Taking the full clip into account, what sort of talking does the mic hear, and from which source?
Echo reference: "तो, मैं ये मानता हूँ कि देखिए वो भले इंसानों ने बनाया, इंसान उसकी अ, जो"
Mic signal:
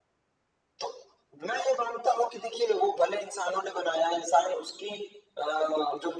echo only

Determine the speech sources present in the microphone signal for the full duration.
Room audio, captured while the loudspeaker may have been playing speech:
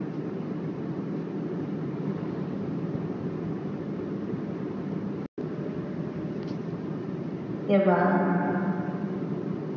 user only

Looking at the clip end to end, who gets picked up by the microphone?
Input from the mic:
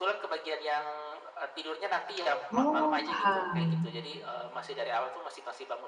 both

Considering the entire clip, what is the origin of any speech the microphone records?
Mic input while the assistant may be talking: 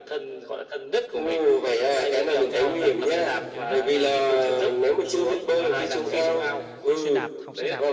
both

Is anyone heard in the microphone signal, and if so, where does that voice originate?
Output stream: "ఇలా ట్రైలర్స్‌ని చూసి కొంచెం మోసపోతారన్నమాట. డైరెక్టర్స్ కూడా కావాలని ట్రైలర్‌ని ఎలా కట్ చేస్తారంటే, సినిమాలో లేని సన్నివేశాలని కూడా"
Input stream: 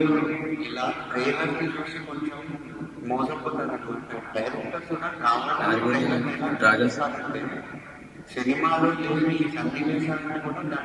both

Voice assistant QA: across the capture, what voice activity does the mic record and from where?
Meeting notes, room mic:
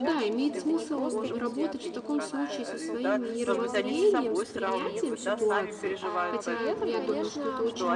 both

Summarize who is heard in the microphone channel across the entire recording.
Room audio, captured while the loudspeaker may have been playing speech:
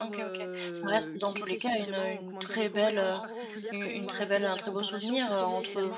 both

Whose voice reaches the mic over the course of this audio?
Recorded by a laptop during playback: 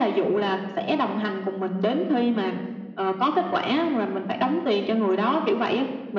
echo only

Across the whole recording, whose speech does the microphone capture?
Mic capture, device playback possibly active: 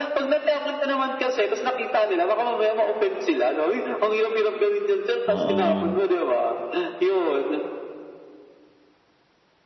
both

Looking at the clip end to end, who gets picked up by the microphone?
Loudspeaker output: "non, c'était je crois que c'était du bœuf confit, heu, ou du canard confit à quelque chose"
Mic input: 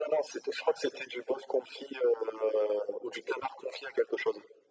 echo only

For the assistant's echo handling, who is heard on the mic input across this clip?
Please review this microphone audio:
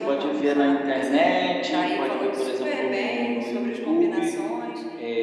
echo only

